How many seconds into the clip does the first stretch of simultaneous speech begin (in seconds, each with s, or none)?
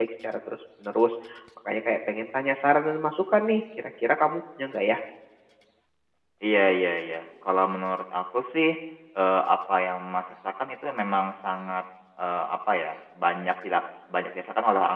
none